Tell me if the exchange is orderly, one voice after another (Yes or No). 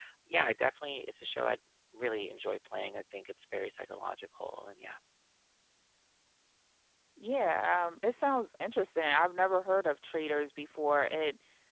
Yes